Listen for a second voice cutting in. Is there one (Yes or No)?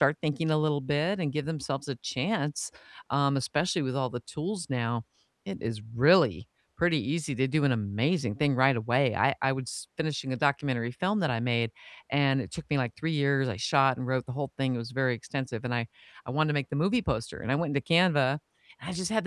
No